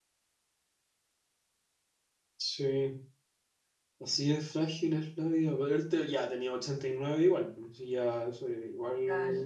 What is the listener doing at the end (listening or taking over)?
taking over